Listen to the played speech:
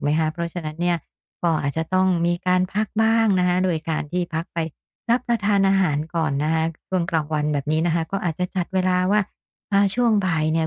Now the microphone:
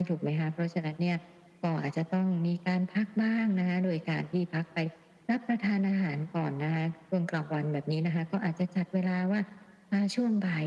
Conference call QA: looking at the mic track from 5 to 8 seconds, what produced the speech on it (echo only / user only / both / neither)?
echo only